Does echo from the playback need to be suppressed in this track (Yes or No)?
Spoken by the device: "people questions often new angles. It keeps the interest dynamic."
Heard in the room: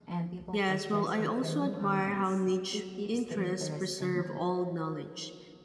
Yes